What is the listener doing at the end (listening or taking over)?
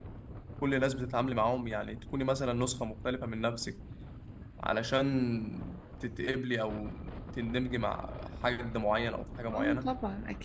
taking over